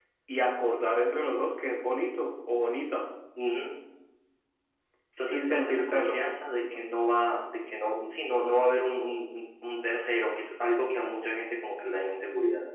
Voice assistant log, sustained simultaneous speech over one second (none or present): present